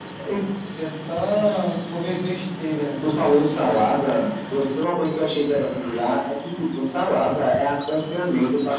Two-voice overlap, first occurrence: none

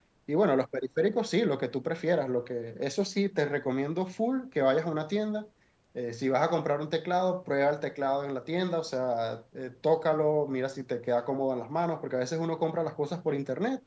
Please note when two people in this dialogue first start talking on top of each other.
none

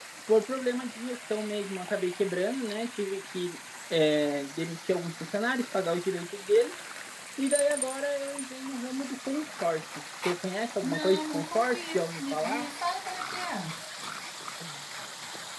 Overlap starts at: 10.8 s

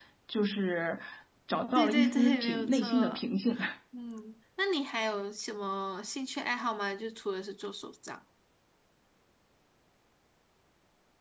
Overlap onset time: 1.8 s

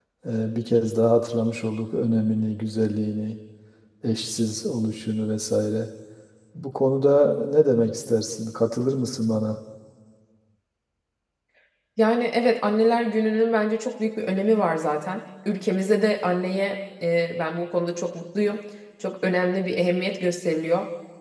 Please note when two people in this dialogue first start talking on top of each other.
none

